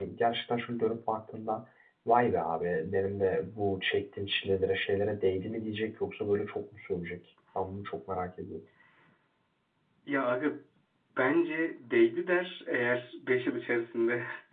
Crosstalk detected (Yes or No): No